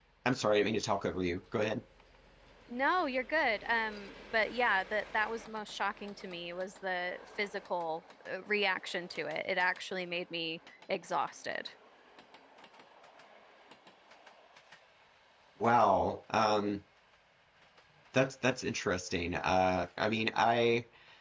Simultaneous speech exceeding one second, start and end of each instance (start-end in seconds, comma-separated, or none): none